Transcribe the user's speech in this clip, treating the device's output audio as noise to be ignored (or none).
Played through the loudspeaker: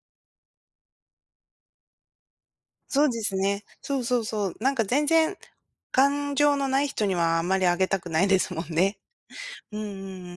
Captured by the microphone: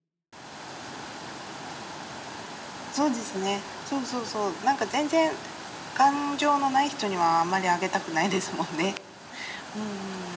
none